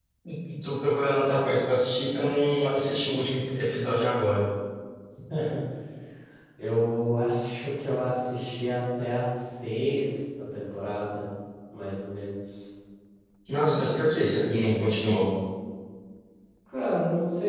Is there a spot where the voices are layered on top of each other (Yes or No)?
No